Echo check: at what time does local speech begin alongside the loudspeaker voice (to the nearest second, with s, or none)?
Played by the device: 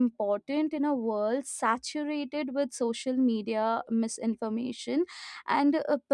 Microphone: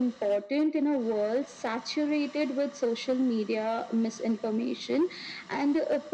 none